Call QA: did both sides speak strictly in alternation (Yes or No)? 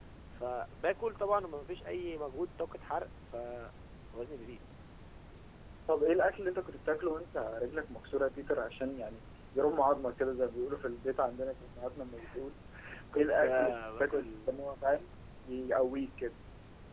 No